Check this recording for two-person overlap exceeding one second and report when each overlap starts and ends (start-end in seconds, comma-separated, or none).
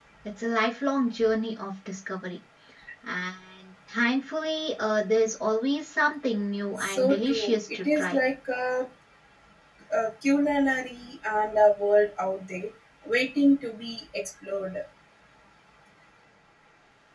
6.8-8.2